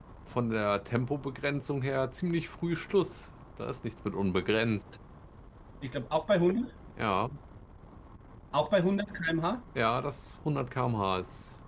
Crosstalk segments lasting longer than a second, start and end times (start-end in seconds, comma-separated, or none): none